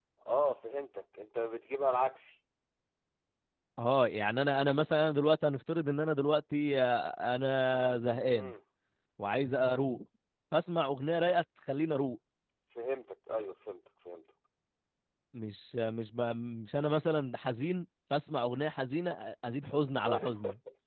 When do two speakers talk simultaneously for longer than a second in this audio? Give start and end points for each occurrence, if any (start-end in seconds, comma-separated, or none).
none